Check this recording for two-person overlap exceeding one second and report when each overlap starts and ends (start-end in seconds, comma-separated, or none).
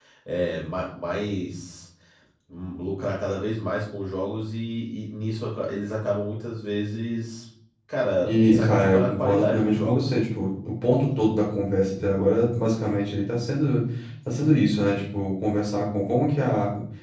8.2-10.1